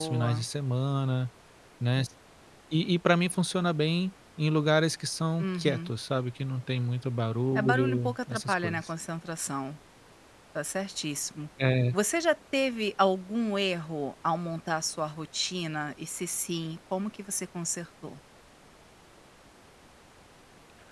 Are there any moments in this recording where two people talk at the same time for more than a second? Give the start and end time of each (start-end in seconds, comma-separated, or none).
7.5-8.8